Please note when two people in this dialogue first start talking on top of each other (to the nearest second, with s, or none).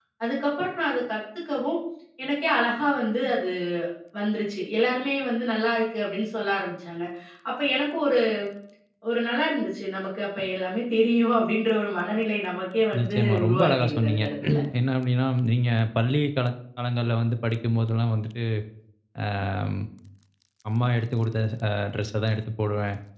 13 s